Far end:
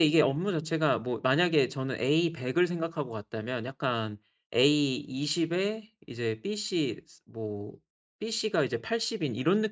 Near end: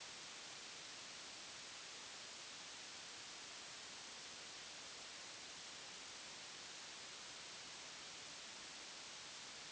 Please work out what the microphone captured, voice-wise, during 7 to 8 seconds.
neither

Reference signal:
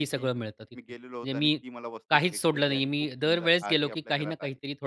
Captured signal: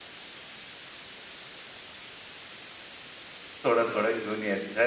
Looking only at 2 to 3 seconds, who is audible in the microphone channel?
neither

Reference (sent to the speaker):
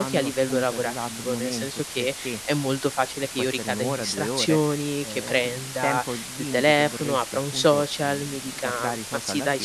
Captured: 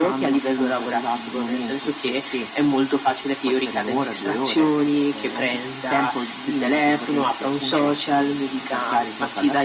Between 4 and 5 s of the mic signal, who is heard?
echo only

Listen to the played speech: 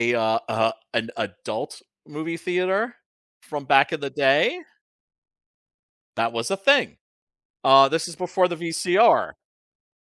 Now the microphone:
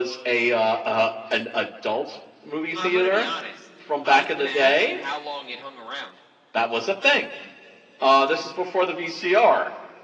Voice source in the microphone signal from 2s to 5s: both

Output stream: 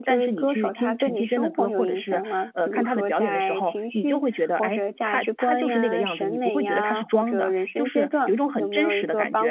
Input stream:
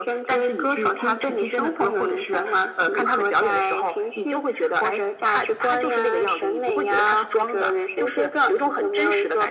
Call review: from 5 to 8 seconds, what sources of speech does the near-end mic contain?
echo only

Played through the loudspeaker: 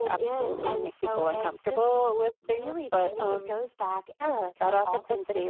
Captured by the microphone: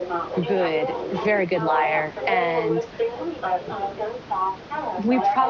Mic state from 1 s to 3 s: both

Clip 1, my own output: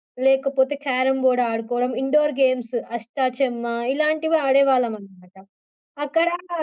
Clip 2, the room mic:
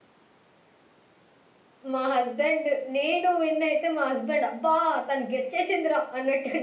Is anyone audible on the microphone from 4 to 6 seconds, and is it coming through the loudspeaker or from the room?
user only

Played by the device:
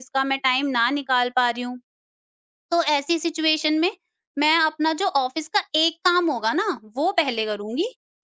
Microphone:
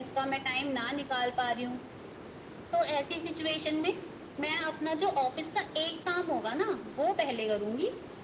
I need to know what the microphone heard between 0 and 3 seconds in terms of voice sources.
echo only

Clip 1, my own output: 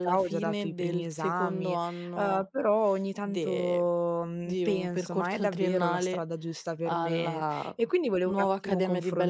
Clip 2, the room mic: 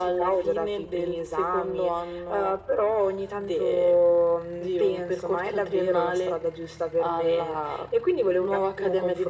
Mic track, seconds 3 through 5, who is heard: echo only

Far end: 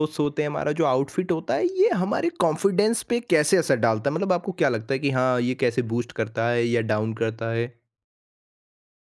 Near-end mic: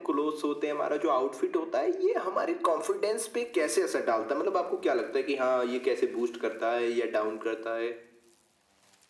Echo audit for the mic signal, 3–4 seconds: echo only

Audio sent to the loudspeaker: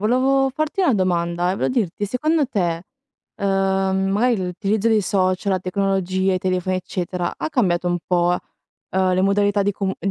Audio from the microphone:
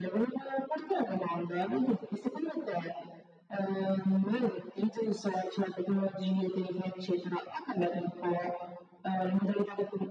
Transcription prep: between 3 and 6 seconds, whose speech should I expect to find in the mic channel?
echo only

